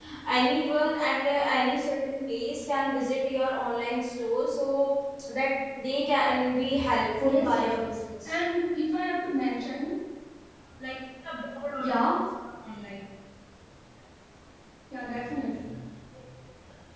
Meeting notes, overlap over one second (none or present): none